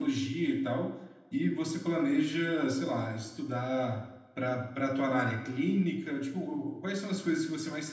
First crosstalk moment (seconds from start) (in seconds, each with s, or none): none